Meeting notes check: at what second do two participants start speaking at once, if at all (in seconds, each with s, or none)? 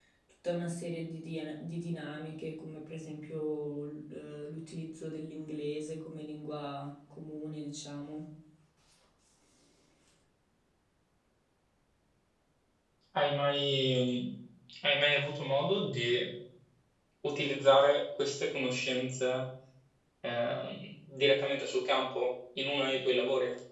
none